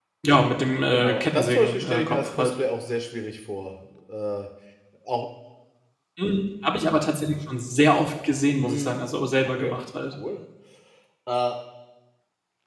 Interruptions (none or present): present